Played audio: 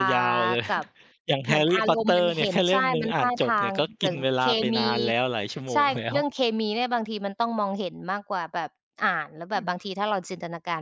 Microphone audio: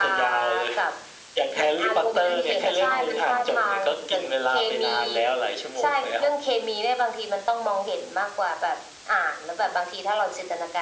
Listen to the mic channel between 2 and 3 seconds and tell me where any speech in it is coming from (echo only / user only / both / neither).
both